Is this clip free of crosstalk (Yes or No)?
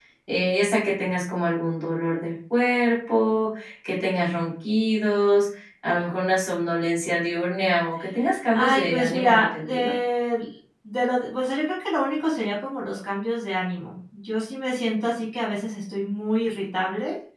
No